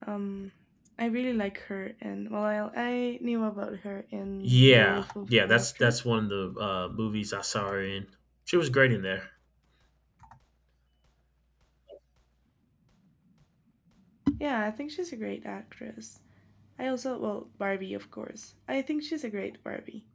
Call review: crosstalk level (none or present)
present